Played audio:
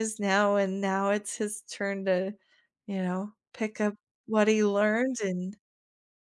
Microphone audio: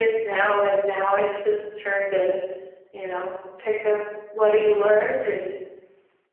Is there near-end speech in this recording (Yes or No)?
No